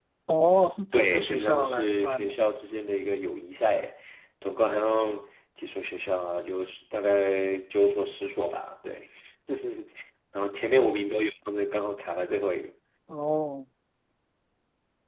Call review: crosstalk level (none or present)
present